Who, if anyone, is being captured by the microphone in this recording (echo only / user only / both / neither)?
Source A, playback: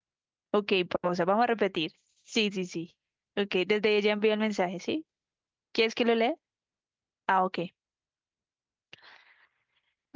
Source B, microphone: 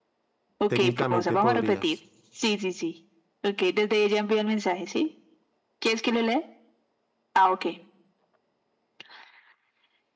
both